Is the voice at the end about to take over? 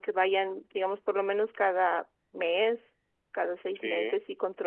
No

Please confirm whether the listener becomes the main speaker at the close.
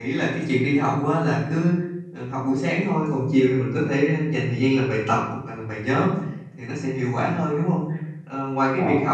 No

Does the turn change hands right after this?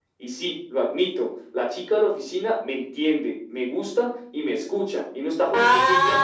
Yes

